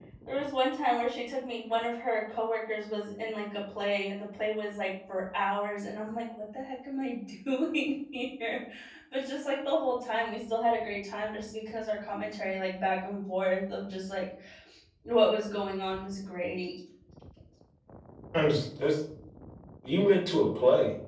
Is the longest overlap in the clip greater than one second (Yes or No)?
No